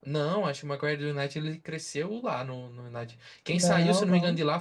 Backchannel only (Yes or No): Yes